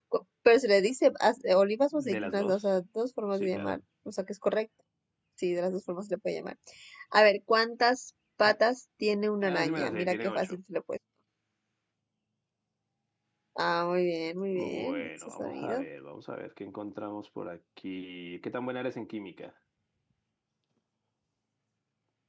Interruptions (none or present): present